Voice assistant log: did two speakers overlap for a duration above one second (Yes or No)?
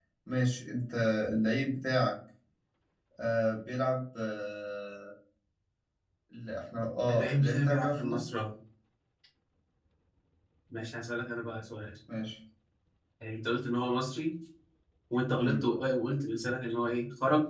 Yes